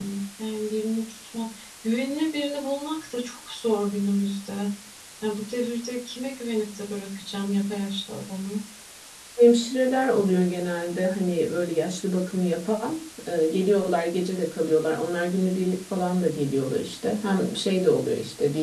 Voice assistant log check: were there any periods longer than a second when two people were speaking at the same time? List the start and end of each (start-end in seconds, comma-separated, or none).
none